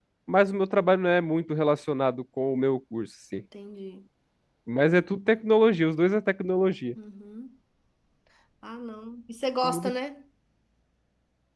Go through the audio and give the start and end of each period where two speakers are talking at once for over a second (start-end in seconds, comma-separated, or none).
none